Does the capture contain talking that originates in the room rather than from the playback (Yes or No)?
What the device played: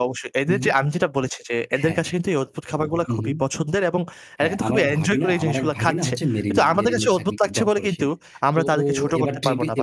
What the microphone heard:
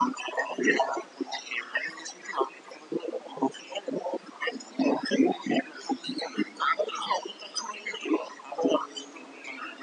No